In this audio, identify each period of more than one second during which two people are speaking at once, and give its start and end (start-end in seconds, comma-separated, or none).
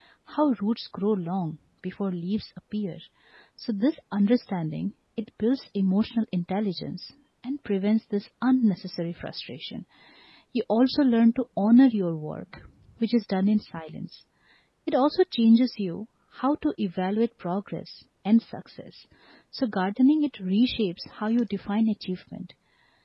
none